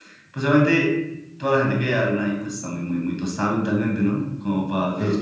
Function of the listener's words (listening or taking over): taking over